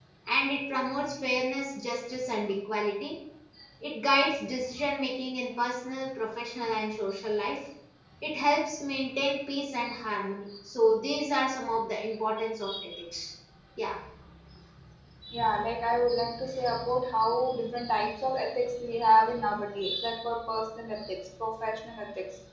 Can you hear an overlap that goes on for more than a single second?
No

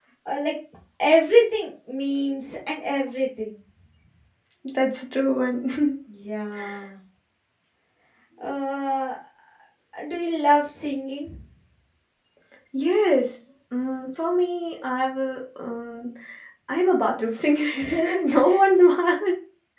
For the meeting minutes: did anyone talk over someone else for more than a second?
No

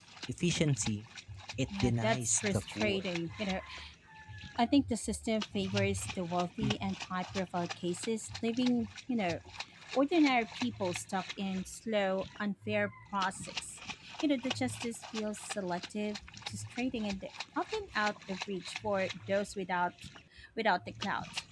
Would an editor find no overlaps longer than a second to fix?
No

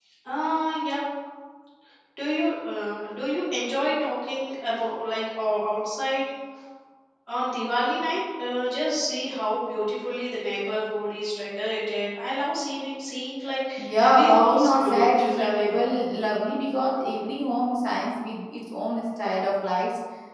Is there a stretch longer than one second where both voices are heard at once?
Yes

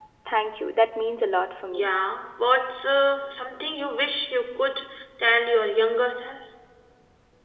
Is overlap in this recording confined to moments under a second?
Yes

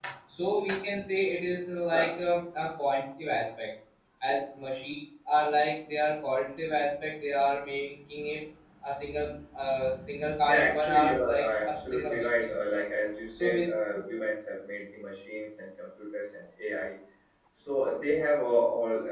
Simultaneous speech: Yes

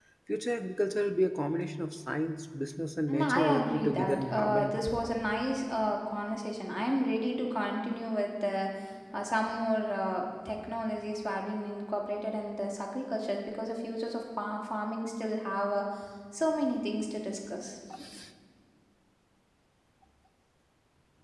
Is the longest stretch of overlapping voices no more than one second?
No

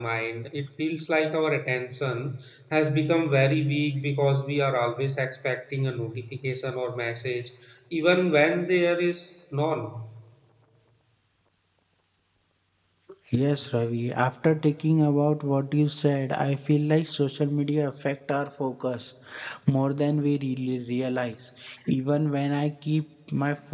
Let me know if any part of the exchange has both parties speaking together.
No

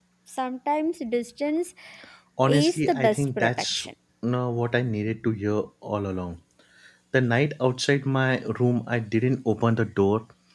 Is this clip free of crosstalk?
No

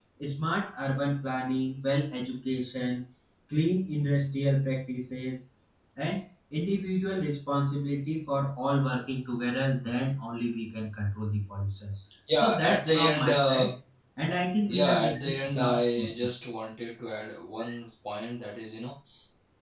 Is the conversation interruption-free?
No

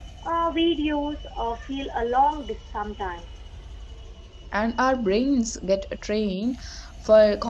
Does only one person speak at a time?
Yes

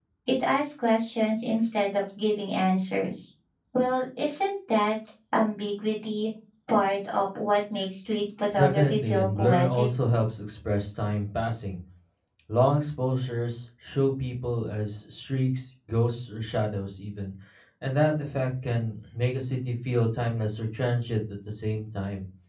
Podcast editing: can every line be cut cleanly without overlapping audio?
No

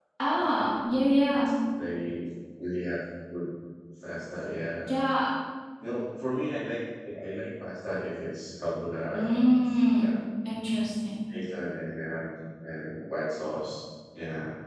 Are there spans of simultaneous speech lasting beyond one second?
No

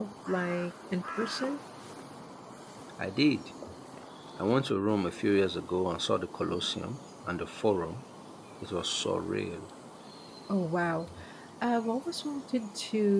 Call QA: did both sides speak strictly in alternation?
Yes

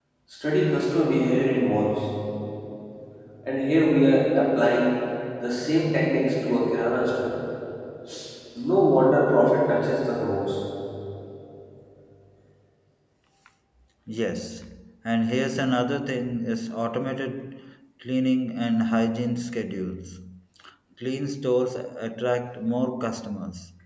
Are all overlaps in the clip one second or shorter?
Yes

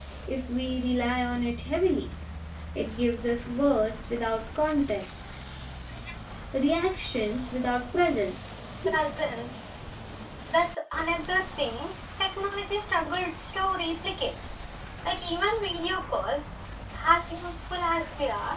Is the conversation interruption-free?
Yes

